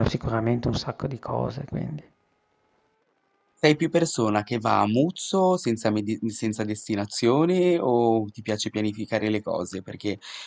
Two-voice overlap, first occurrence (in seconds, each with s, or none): none